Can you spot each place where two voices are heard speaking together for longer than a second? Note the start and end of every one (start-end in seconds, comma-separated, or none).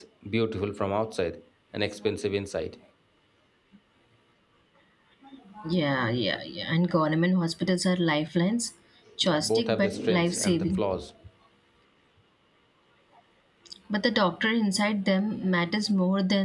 9.2-10.8